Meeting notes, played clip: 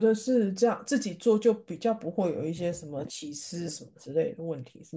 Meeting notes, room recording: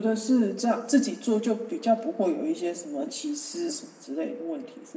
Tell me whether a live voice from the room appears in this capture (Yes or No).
No